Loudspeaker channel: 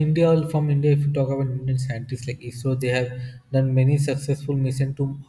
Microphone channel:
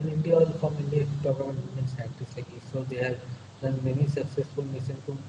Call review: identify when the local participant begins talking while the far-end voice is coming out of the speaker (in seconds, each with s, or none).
none